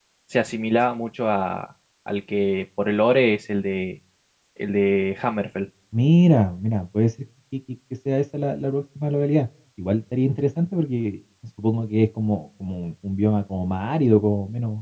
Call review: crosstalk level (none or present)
none